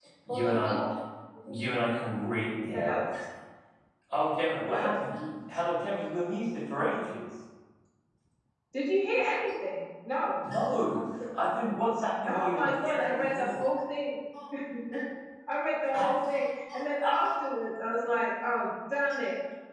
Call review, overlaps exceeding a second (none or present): present